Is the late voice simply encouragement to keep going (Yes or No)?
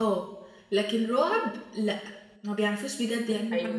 No